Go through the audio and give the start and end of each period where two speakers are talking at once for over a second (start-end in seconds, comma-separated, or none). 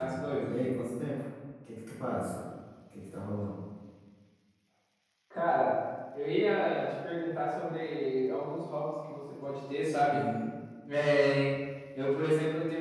none